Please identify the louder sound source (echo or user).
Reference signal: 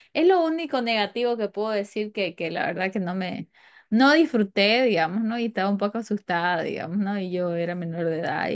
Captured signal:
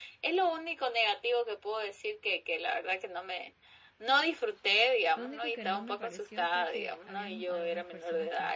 echo